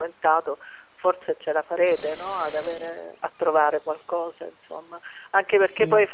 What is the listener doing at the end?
listening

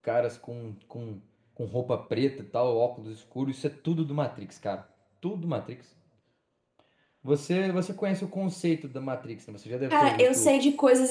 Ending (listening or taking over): taking over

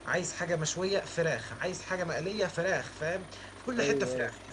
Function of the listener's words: listening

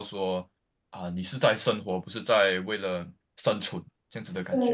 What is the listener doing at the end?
taking over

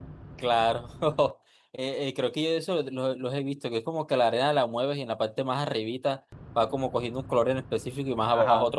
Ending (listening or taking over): taking over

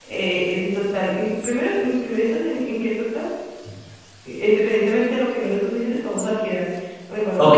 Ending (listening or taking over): taking over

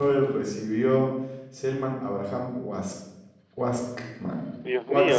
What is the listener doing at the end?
taking over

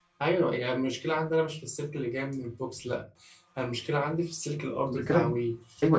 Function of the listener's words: taking over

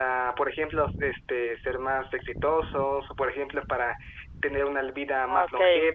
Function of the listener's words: listening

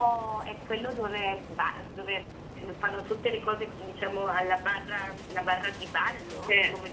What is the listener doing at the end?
taking over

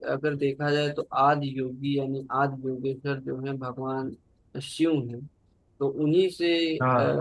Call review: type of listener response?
listening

